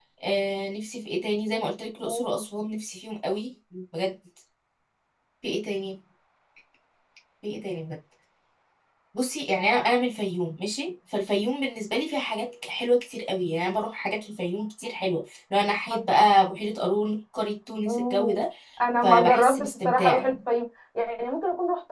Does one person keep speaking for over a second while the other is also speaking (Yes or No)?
Yes